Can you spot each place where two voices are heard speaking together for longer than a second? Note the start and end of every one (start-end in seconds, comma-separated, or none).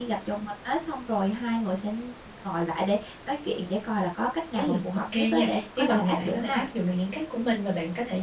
4.6-6.6